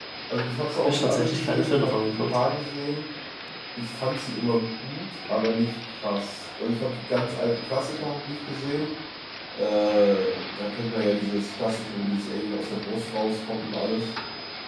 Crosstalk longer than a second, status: present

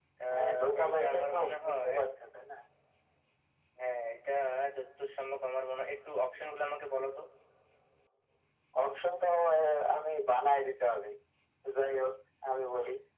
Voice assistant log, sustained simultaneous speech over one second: present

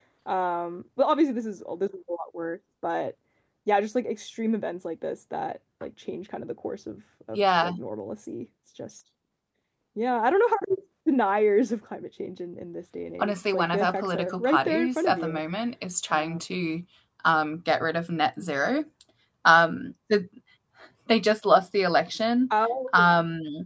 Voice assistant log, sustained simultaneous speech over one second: present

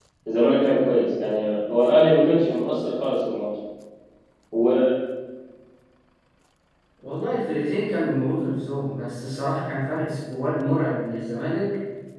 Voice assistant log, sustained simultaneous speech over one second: none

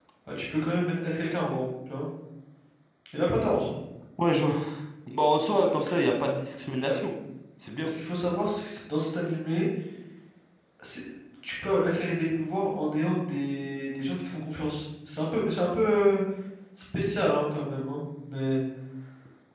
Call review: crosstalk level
none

